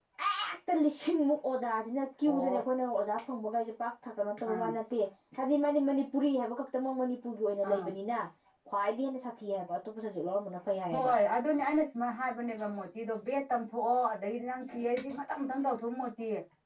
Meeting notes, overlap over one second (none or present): none